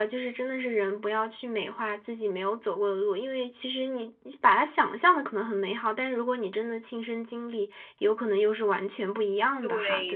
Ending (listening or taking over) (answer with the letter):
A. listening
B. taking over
B